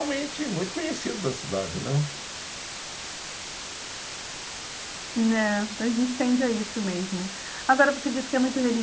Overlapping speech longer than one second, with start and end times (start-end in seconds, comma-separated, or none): none